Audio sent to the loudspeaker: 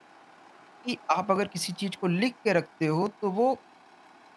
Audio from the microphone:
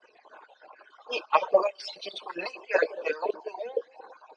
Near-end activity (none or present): none